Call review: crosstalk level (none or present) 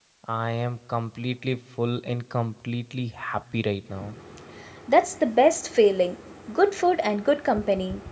none